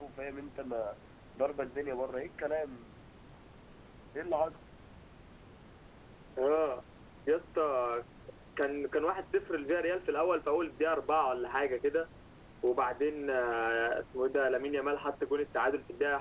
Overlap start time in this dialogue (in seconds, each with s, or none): none